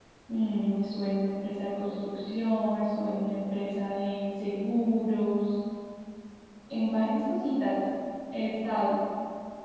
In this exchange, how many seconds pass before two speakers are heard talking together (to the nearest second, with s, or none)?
none